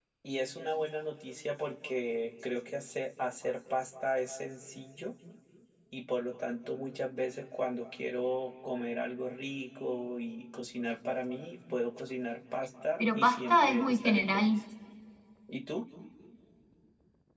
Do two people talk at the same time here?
Yes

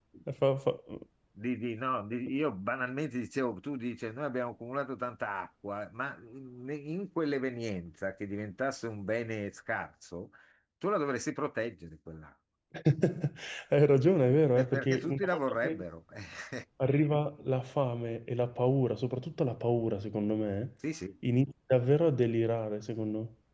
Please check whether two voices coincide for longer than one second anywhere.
Yes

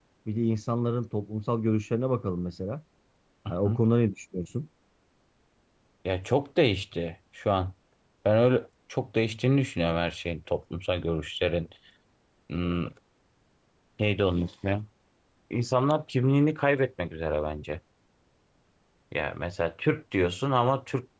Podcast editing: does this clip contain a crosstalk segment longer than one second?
No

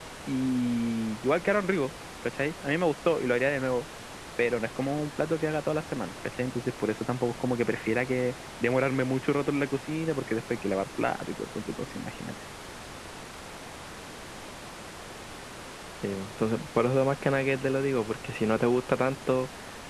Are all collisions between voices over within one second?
Yes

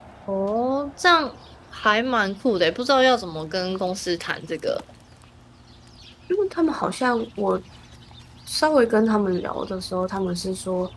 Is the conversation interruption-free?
Yes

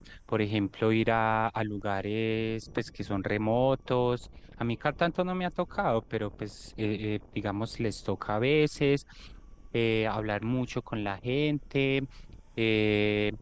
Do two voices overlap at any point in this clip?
No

